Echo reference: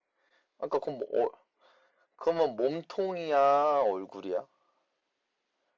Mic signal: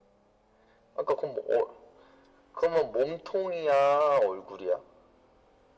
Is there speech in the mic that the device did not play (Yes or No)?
No